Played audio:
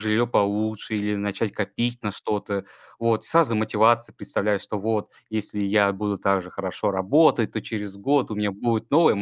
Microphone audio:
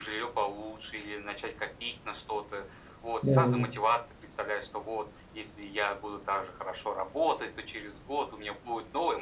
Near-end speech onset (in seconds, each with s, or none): 3.2 s